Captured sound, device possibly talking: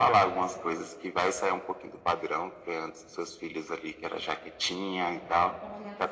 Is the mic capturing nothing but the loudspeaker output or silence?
No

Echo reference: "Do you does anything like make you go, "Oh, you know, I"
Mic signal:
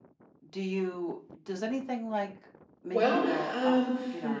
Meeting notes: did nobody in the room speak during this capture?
No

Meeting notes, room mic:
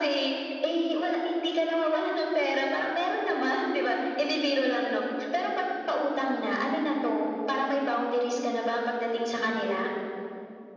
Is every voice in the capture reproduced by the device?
Yes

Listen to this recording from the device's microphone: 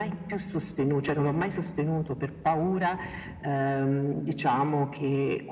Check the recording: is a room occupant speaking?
No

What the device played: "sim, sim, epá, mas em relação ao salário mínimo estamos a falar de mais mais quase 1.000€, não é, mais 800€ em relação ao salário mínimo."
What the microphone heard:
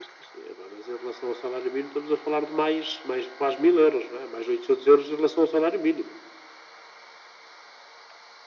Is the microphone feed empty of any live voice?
Yes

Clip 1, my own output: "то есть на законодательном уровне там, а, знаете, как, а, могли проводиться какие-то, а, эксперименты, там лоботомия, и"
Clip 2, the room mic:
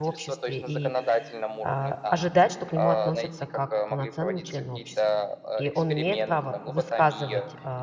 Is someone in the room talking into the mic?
Yes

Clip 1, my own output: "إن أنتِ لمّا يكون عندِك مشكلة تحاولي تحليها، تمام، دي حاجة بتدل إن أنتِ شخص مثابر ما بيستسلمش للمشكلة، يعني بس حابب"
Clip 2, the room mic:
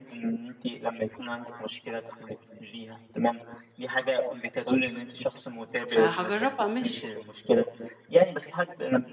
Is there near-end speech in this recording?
Yes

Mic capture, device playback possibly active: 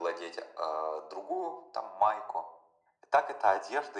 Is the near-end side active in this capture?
No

